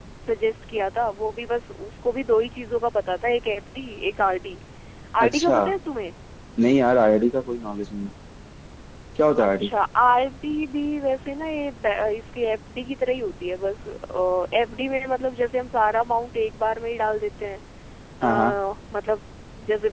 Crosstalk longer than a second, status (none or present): none